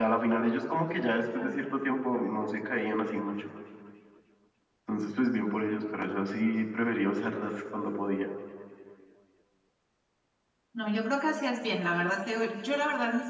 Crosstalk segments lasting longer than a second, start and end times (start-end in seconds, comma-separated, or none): none